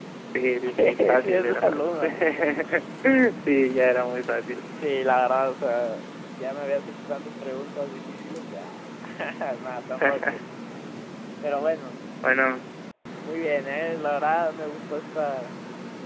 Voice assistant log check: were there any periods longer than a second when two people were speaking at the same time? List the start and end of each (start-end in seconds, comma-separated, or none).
0.6-2.0